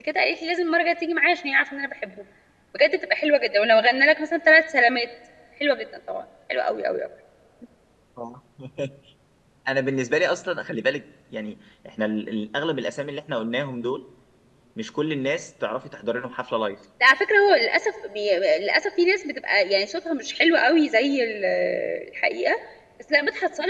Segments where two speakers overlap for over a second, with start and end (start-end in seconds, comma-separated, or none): none